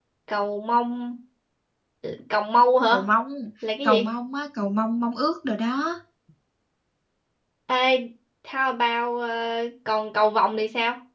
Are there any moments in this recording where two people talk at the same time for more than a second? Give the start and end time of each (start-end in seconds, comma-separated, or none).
none